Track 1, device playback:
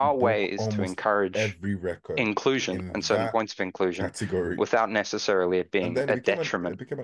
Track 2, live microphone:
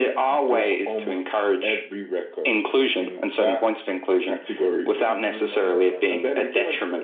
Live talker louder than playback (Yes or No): No